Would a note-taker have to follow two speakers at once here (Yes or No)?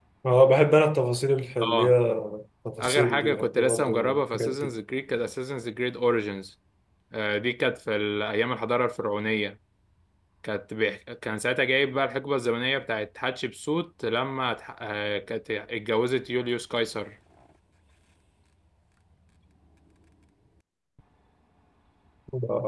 Yes